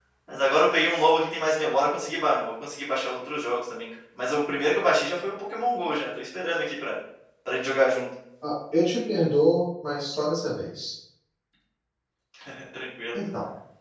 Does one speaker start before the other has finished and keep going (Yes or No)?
No